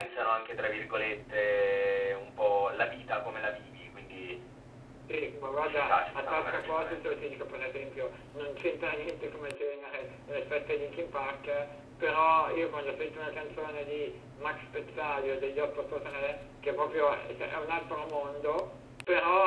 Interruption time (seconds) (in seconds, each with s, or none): 5.7 s